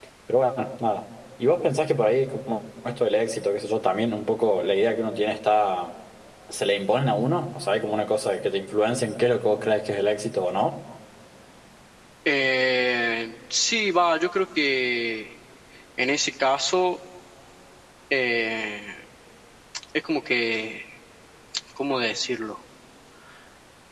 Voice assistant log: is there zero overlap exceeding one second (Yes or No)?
Yes